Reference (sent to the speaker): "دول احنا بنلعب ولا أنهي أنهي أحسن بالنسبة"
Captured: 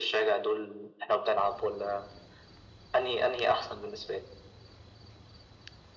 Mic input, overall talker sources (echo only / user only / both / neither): echo only